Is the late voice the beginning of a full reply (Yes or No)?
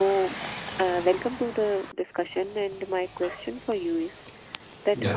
No